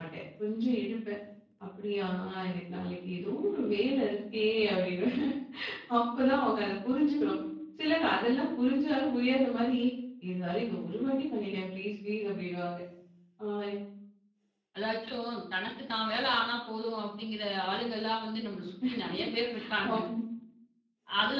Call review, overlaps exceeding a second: none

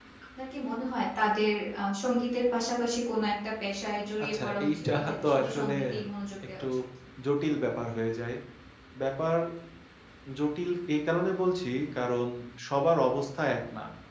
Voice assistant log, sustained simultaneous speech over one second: present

